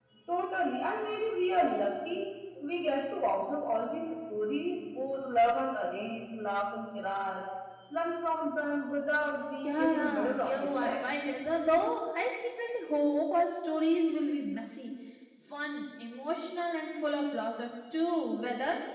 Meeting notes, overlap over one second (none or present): present